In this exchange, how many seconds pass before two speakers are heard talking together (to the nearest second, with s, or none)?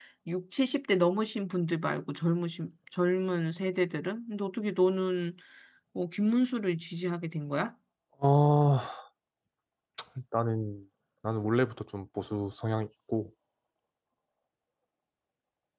none